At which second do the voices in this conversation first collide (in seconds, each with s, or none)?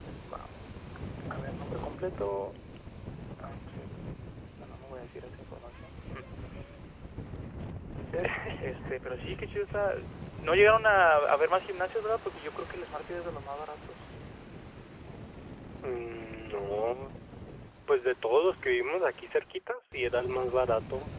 none